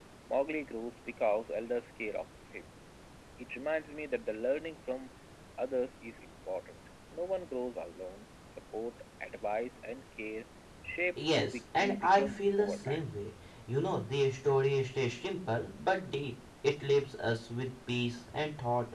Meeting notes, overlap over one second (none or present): present